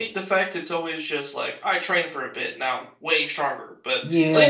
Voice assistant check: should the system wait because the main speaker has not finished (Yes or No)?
No